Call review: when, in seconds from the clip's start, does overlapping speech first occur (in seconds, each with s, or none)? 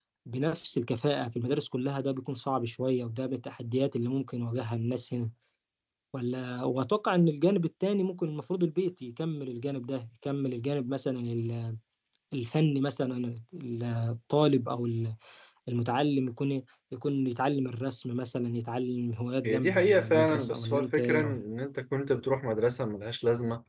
19.4 s